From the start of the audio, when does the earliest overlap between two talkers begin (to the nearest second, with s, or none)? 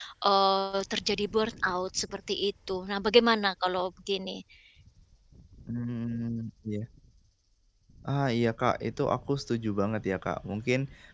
none